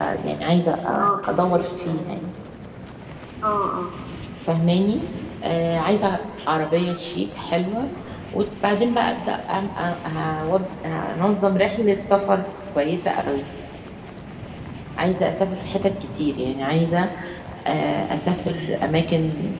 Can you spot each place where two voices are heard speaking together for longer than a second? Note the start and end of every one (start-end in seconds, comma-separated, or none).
1.0-2.3